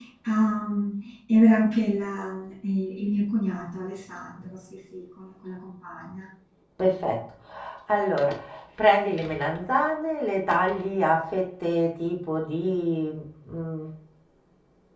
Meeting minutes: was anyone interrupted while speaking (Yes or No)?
No